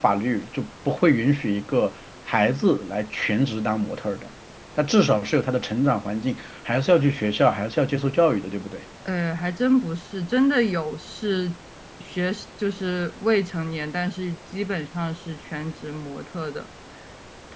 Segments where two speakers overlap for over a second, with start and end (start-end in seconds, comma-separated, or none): none